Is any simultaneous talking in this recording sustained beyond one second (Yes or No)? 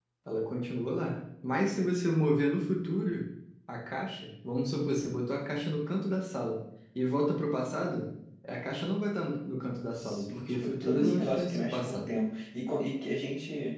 Yes